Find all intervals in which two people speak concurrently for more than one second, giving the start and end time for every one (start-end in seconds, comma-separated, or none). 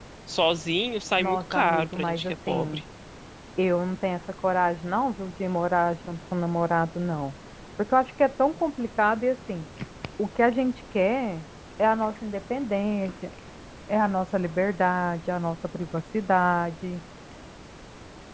1.2-2.8